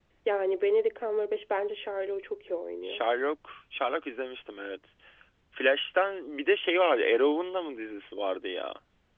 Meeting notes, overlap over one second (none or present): none